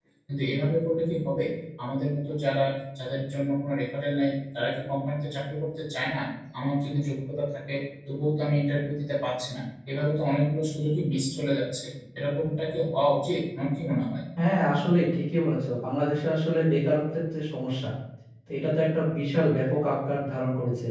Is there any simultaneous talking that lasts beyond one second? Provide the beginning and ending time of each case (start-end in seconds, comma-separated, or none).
none